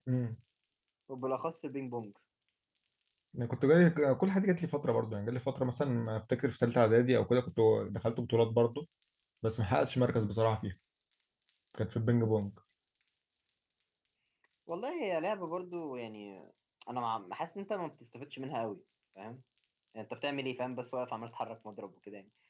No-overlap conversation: Yes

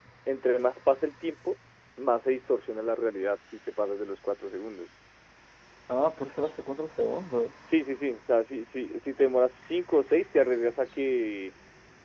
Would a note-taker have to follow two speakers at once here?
No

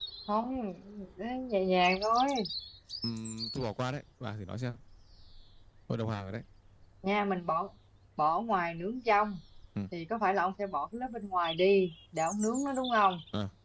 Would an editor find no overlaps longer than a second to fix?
Yes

